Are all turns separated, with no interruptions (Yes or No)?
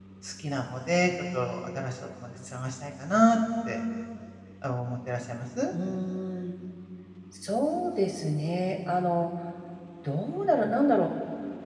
Yes